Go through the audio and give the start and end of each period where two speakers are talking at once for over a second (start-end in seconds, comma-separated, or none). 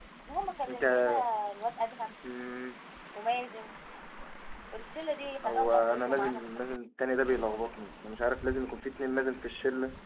5.4-6.8